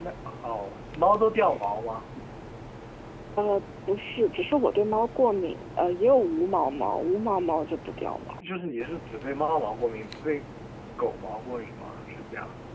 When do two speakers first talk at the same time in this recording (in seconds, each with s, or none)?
none